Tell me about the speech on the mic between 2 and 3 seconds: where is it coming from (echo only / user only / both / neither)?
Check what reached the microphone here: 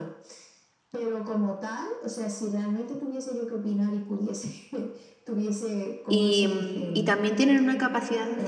echo only